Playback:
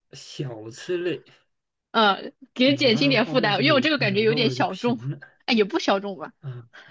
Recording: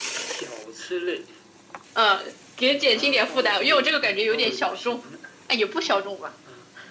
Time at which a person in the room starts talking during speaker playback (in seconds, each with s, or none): none